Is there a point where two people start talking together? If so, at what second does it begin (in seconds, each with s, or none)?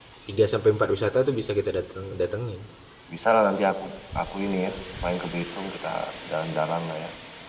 none